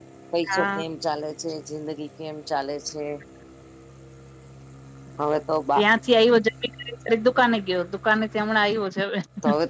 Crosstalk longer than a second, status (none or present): none